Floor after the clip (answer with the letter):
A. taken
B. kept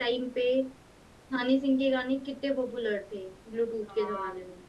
A